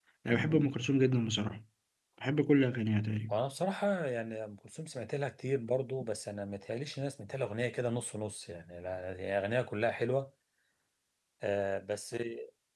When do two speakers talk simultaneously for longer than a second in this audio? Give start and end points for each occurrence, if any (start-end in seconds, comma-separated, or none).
none